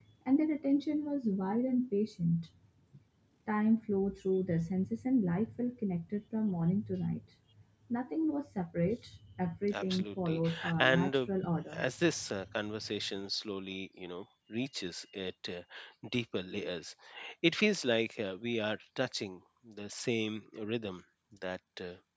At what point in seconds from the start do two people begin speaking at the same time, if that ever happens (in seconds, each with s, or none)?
9.7 s